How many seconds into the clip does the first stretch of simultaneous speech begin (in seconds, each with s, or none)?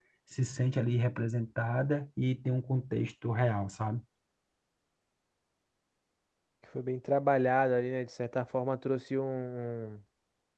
none